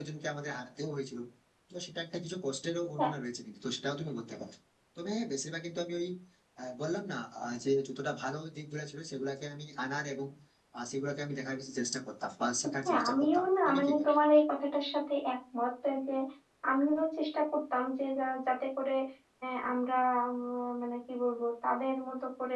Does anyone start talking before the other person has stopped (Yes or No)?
Yes